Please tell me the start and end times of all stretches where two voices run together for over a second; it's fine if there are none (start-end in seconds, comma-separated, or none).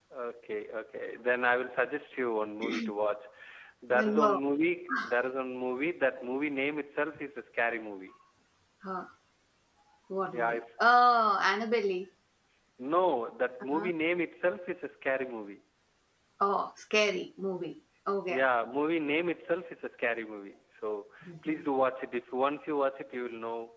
none